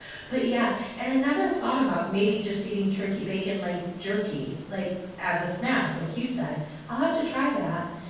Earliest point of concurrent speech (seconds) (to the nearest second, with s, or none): none